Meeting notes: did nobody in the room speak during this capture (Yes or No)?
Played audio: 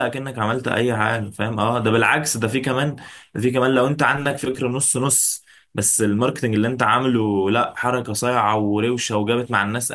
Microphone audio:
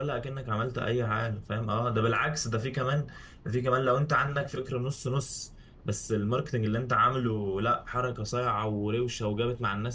Yes